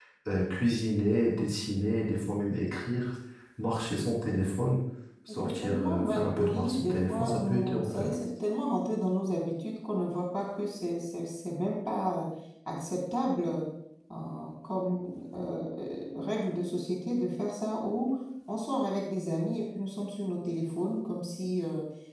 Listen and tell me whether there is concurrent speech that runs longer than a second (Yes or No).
Yes